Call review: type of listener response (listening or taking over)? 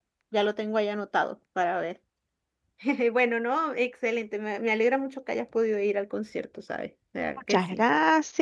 taking over